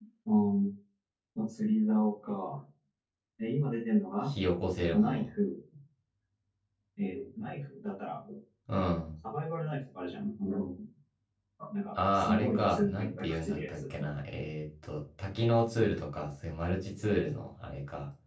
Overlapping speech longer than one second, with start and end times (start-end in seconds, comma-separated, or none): 12.1-13.8